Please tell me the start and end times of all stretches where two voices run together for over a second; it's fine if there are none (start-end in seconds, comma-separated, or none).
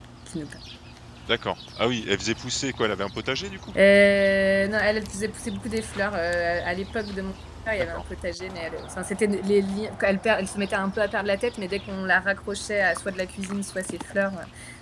none